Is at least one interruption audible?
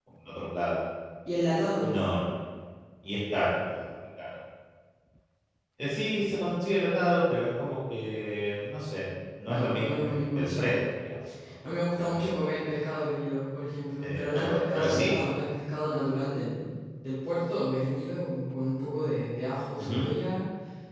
Yes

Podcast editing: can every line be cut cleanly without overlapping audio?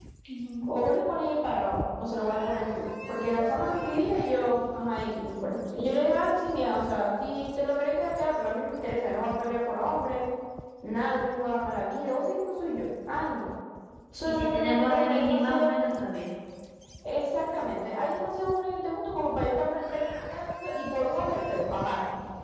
No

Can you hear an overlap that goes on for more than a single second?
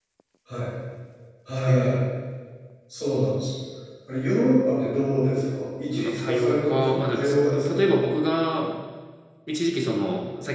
Yes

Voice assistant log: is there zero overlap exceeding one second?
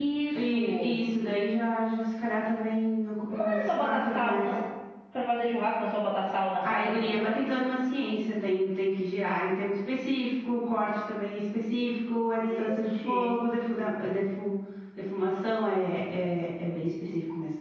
No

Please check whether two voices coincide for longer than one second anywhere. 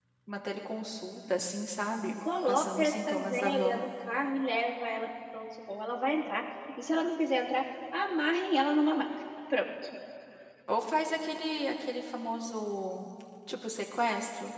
Yes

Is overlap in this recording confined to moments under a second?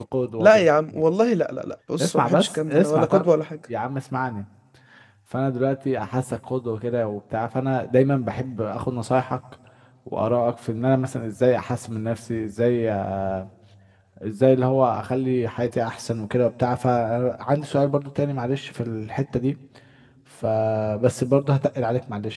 No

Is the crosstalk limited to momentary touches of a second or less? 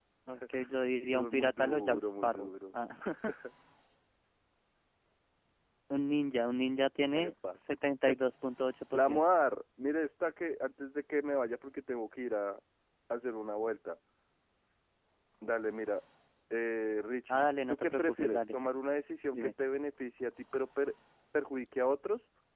No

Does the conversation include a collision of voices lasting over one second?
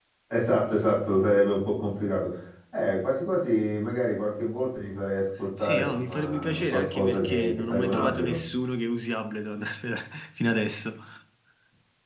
Yes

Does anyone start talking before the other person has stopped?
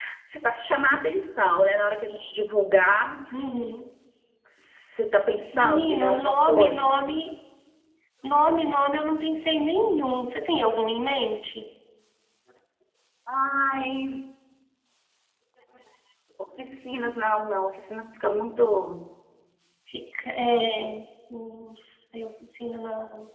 Yes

